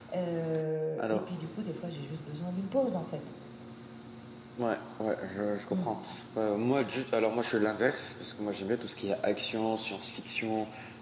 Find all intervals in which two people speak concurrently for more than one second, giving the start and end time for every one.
none

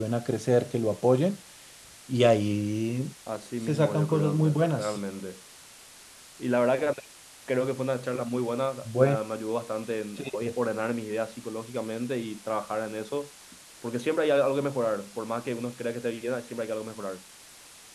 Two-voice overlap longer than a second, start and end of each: 3.7-5.0

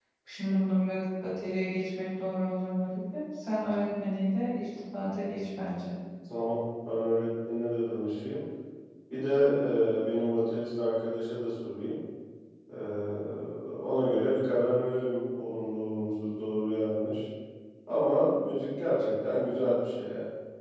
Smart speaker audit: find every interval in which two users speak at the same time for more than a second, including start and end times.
none

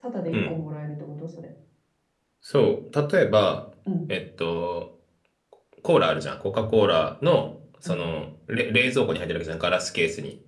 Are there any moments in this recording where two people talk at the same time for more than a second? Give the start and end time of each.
none

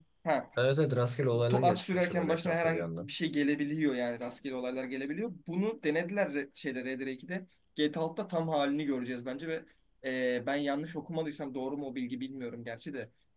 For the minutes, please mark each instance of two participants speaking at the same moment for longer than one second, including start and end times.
1.5-3.1

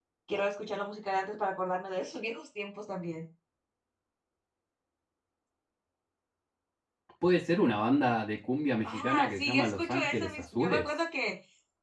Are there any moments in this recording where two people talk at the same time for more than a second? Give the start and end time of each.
8.8-10.9

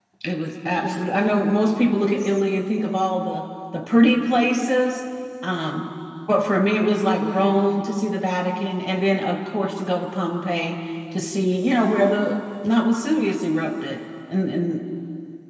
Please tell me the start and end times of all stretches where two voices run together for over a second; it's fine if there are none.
none

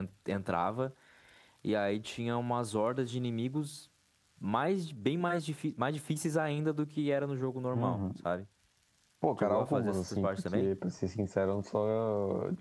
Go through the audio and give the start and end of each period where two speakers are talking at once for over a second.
9.4-10.7

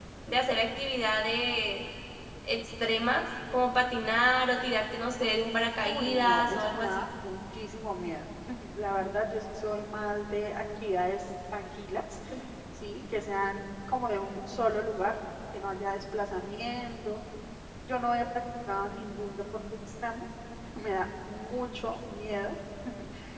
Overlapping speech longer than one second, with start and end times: 5.8-7.1

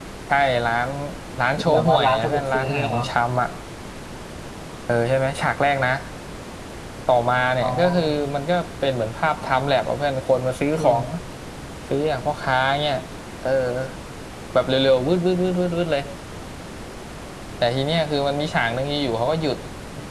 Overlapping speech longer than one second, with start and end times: 1.6-3.0

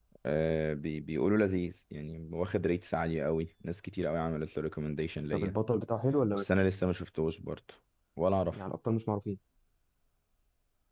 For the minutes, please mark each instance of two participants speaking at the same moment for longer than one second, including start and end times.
none

